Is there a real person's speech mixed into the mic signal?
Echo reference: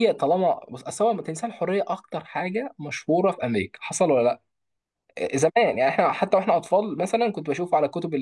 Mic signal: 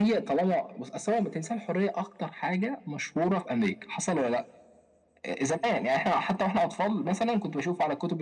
No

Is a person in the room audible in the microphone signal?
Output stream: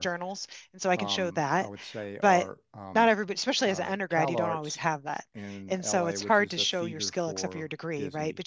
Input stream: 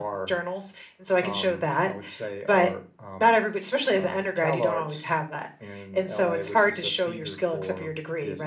No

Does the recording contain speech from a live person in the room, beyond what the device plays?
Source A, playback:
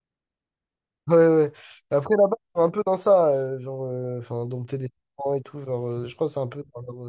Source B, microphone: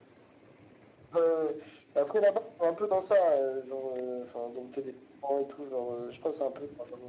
No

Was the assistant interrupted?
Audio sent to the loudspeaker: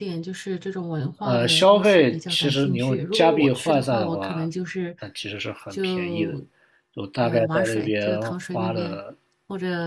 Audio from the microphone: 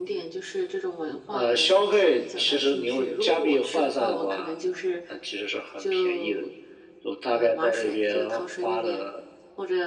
No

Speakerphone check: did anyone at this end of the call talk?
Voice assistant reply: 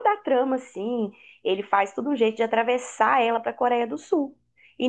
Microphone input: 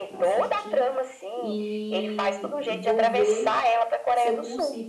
Yes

